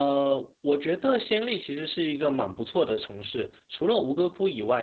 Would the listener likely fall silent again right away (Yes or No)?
Yes